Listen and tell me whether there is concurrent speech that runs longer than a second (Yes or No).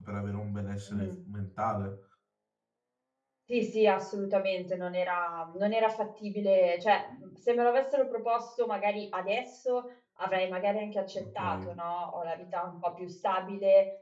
No